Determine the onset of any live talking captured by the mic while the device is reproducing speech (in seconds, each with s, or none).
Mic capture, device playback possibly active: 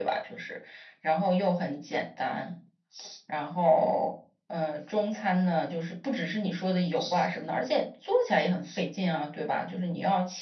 none